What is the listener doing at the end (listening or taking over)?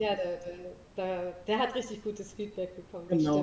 taking over